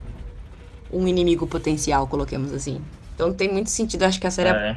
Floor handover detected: No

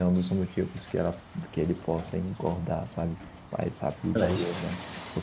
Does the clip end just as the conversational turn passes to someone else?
No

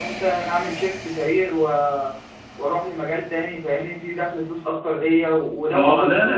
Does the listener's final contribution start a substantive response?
Yes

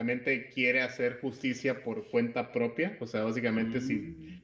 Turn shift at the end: No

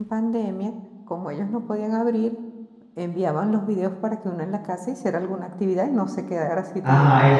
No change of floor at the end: No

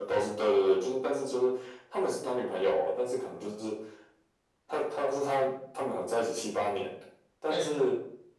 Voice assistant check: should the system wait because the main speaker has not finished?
Yes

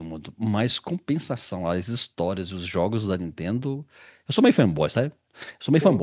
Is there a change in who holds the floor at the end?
No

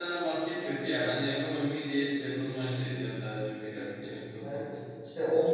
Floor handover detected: Yes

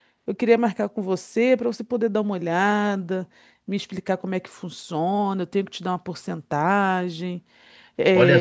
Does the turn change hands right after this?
Yes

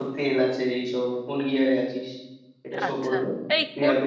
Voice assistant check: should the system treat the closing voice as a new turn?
Yes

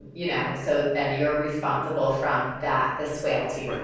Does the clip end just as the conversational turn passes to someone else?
Yes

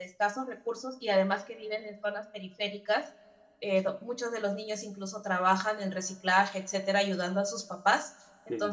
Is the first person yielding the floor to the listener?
No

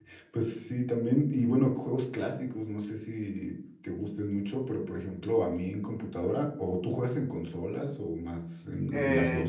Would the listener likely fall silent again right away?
No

